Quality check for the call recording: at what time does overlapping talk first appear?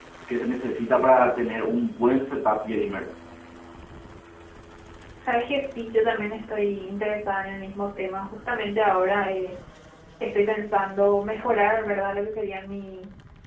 none

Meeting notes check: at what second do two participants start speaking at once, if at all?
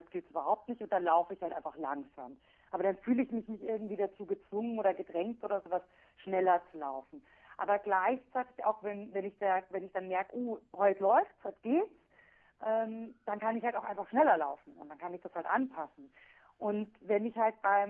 none

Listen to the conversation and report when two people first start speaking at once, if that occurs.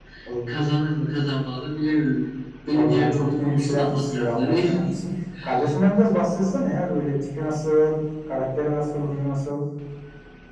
2.7 s

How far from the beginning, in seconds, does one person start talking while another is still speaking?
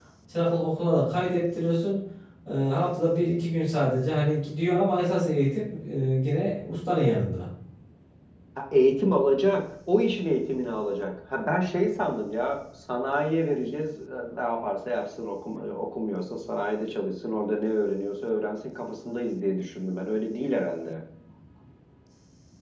none

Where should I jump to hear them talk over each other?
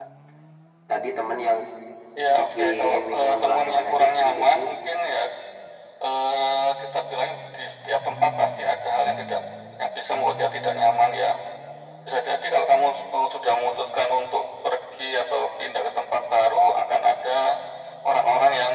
2.4 s

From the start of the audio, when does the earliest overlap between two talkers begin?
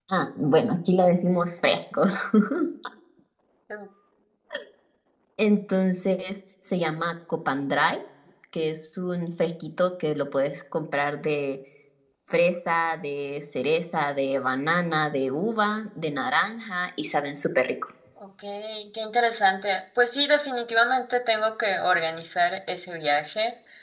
none

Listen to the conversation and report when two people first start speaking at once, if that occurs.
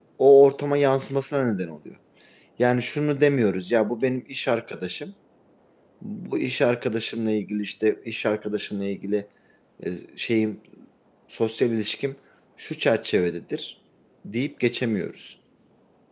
none

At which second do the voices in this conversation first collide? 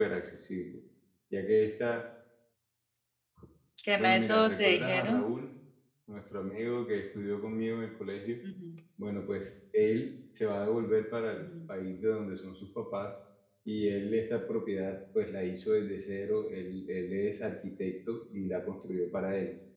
4.0 s

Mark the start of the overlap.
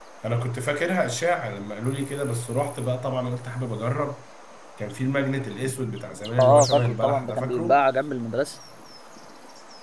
6.4 s

